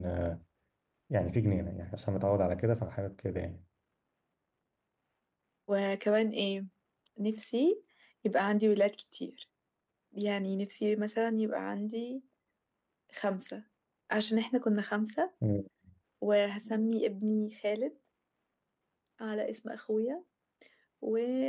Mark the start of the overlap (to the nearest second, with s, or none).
none